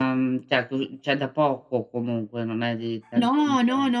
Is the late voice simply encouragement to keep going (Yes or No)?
No